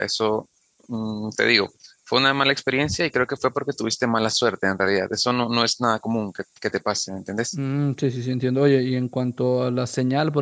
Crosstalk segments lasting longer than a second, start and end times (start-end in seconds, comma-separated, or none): none